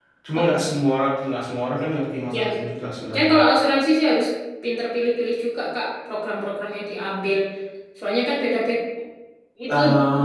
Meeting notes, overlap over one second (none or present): none